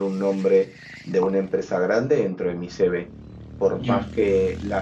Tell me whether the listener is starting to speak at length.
No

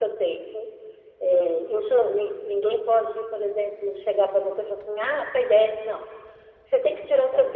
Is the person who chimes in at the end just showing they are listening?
Yes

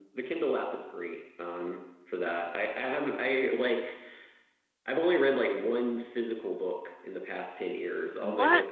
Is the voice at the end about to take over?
No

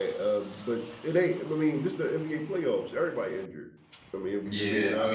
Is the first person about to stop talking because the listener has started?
Yes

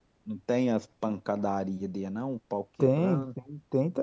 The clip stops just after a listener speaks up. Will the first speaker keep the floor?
No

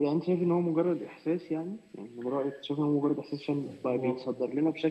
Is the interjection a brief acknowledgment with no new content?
Yes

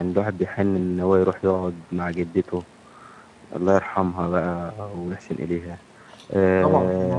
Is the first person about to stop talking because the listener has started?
Yes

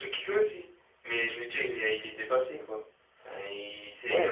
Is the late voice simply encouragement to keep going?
No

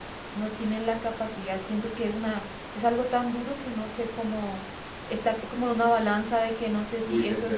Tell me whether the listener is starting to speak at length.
Yes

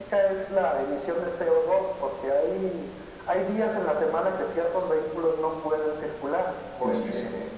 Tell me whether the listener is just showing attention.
No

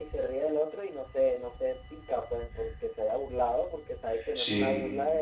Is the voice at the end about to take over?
No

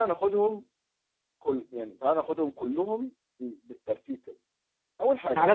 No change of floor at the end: No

